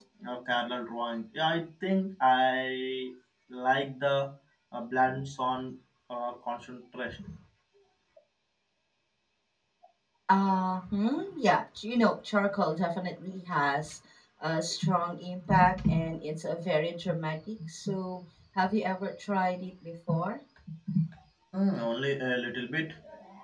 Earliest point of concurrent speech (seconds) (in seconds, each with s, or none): none